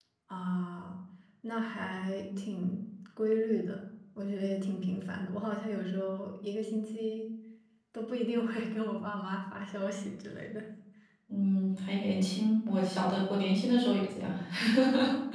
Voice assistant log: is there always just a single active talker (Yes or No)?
Yes